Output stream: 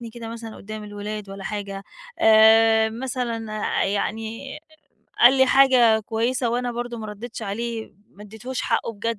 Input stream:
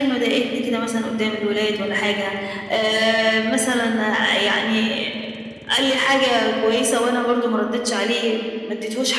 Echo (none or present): present